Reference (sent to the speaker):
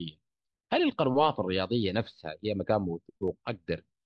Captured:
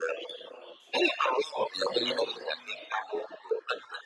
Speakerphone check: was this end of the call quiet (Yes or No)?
No